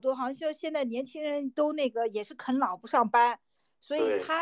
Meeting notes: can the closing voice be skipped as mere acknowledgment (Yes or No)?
Yes